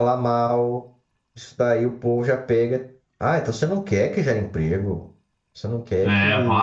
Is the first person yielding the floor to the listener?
Yes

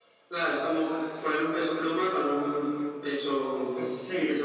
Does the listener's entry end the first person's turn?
Yes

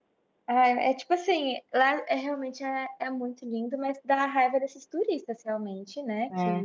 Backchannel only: Yes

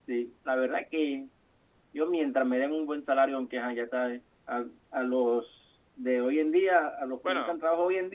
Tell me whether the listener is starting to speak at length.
No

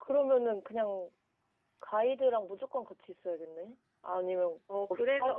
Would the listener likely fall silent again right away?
No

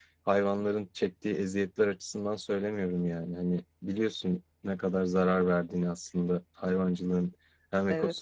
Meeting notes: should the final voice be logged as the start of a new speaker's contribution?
No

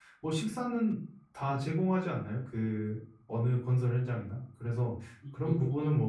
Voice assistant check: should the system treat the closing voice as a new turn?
No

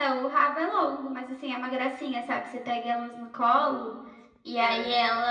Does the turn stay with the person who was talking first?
Yes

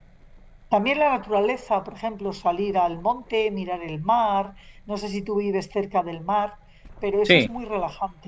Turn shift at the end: No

